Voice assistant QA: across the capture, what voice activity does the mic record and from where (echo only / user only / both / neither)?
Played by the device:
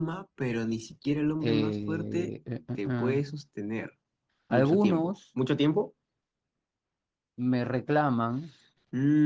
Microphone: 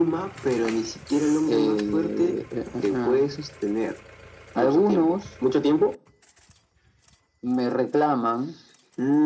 echo only